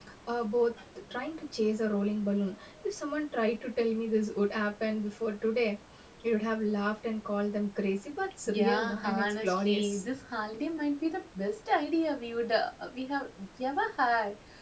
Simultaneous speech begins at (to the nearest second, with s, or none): 8 s